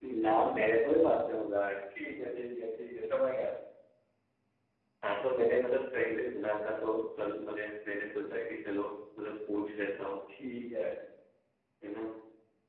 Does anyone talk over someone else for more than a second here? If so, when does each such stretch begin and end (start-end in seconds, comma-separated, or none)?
none